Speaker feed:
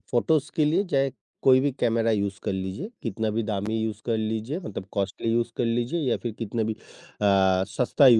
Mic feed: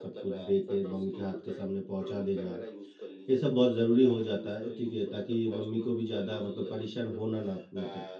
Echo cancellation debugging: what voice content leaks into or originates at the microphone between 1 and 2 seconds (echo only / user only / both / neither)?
both